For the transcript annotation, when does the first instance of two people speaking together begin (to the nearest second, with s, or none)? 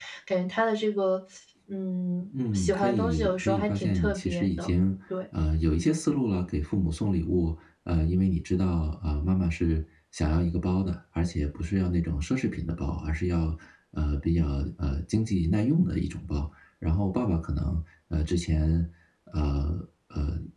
3 s